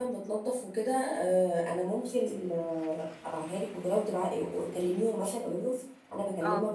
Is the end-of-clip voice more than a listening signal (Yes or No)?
No